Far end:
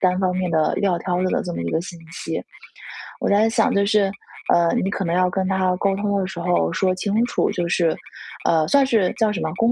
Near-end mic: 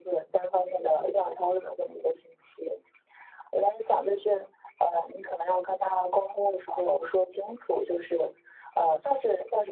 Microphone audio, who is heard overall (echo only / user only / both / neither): echo only